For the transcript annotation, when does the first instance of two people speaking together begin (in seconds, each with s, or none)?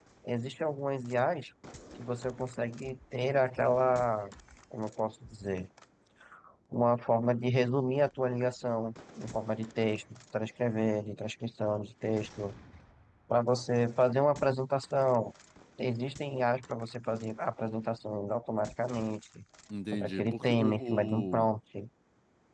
19.9 s